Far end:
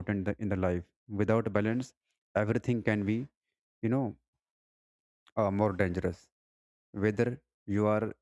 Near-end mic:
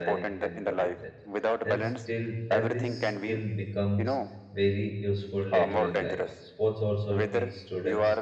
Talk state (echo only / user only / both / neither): both